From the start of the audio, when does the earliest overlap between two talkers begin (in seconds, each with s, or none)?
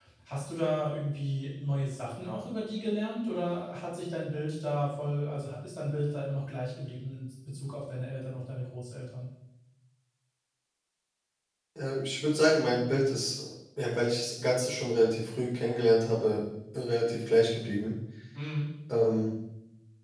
none